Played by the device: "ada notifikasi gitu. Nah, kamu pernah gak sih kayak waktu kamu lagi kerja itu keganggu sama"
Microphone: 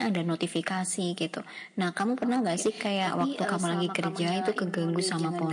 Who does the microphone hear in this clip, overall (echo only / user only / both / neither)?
both